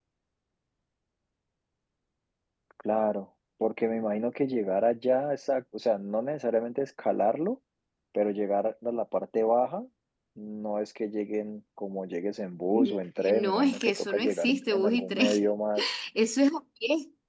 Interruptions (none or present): present